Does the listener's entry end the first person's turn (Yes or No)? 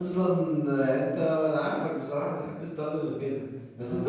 No